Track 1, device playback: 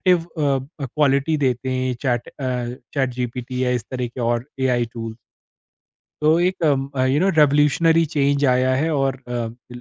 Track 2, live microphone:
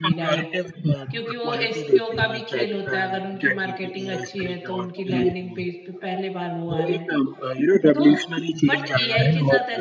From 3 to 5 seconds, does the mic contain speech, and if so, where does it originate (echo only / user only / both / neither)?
both